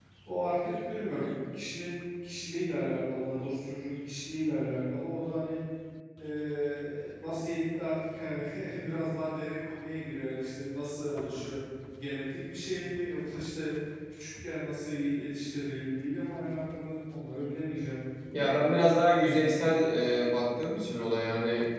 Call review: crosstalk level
none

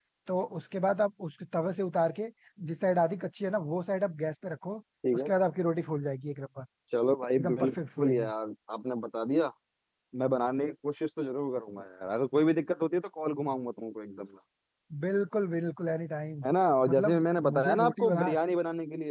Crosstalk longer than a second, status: present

